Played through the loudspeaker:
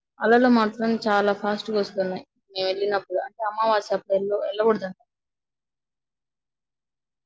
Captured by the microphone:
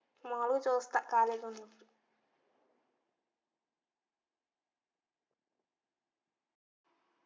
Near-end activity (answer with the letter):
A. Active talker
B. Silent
A